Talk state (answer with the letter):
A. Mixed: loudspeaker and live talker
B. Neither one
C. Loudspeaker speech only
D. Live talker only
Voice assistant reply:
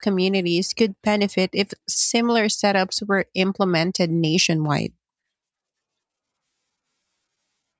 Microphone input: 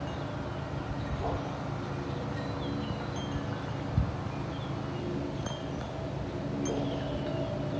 B